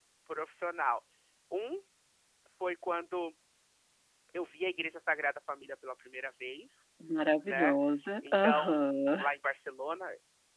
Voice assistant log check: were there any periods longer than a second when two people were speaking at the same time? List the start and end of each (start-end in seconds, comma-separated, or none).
none